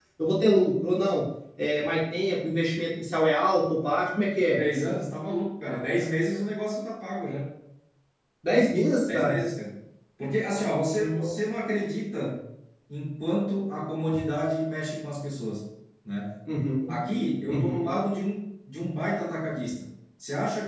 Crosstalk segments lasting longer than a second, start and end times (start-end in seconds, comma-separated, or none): none